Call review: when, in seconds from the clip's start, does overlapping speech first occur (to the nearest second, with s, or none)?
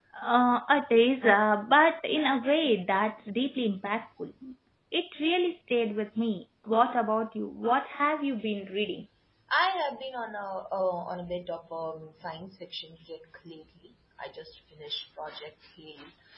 none